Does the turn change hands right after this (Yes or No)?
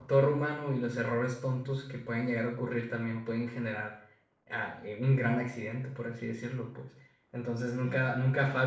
No